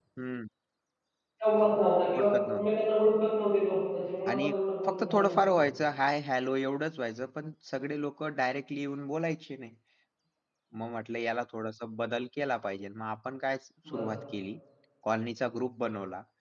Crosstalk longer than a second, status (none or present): present